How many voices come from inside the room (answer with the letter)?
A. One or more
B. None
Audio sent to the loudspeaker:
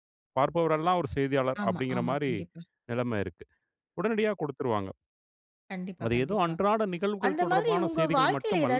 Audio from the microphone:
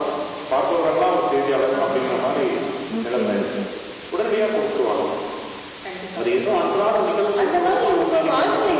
A